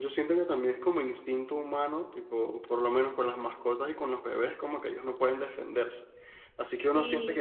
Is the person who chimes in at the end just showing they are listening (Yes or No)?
Yes